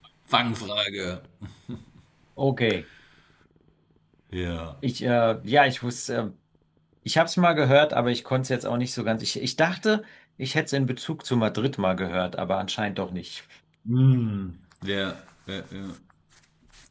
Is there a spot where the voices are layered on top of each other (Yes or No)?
No